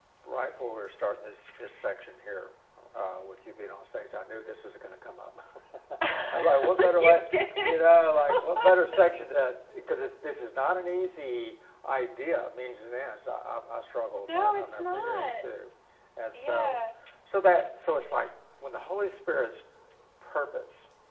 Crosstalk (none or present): present